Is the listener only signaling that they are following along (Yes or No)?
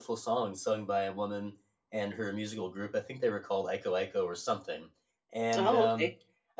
Yes